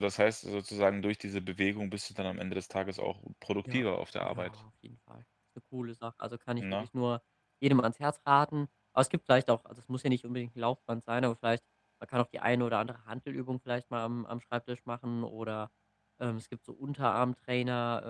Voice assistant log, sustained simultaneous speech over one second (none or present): none